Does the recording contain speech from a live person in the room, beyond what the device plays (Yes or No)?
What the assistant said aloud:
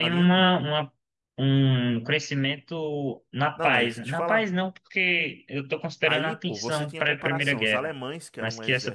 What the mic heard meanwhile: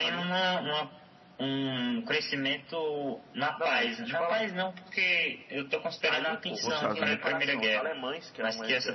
Yes